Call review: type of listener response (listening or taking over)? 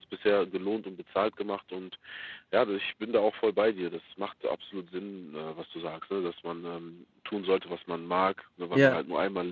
listening